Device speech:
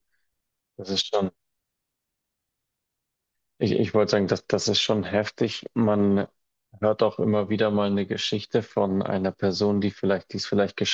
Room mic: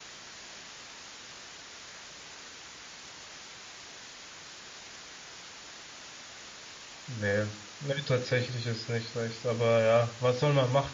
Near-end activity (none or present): present